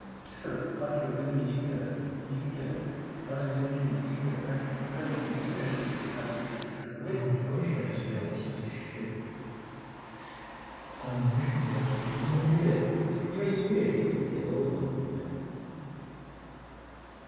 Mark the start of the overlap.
7.0 s

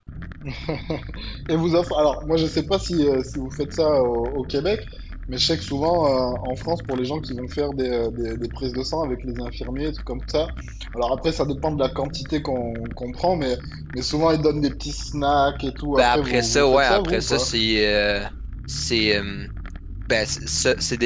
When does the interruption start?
15.9 s

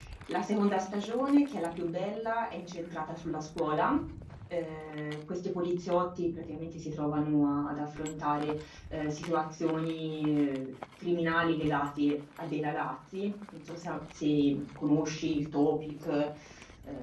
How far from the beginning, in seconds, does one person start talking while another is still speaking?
none

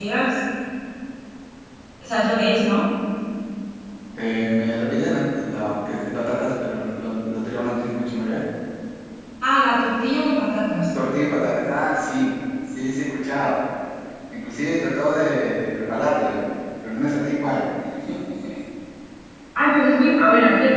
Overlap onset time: none

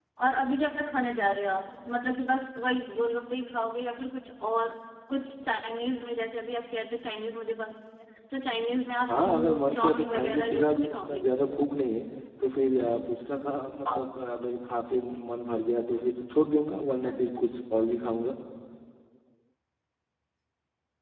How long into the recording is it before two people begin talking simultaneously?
9.1 s

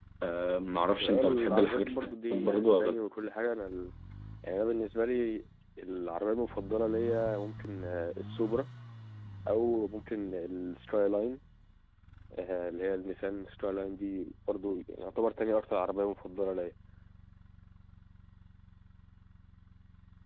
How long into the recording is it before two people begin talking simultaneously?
1.0 s

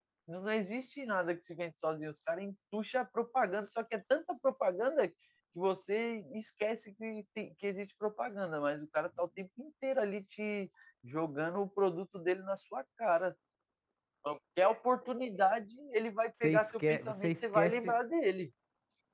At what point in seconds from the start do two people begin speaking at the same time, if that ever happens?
16.4 s

